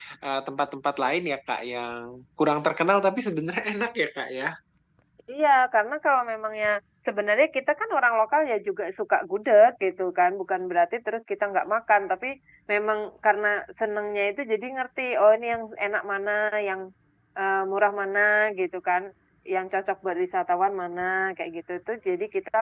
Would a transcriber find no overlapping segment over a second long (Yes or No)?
Yes